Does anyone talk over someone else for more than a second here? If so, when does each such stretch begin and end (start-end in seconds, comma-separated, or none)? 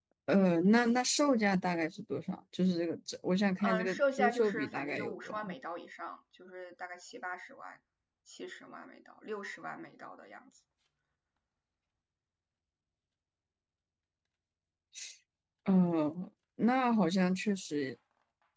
3.6-5.5